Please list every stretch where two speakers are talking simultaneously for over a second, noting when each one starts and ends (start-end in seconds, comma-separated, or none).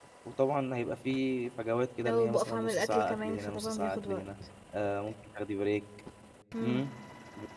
2.0-4.2